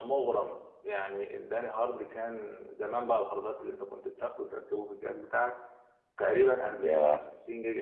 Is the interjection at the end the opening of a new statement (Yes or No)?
No